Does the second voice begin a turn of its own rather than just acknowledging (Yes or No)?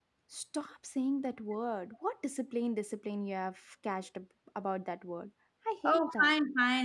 Yes